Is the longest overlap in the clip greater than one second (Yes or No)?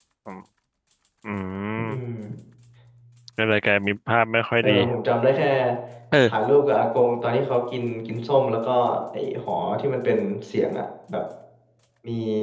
No